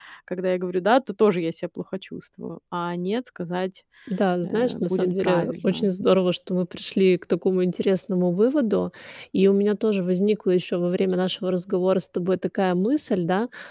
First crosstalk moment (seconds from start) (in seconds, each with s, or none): 4.4 s